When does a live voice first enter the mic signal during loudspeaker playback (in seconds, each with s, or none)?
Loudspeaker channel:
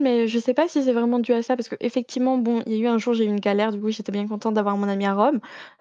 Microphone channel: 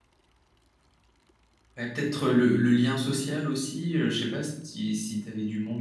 1.8 s